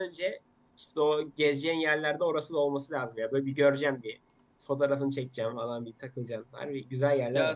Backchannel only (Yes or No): No